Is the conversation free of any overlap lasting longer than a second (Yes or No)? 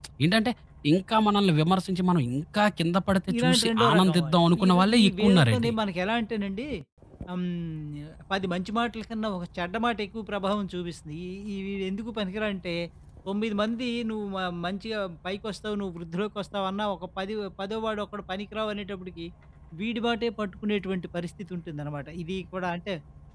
No